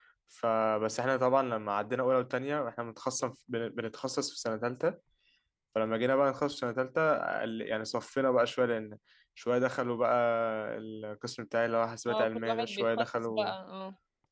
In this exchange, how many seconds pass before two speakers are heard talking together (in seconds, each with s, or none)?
12.1 s